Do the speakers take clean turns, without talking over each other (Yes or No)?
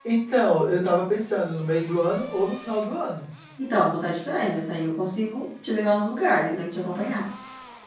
Yes